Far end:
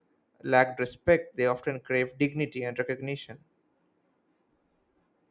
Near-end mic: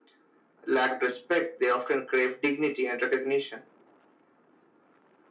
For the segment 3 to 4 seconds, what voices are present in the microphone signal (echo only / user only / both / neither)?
echo only